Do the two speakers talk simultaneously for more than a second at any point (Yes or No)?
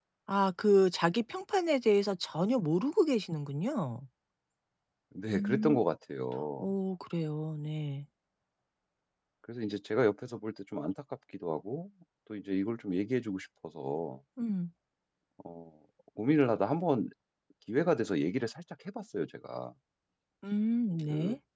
No